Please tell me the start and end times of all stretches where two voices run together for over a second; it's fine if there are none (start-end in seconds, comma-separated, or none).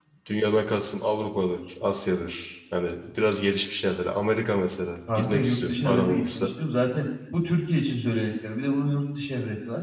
5.2-6.5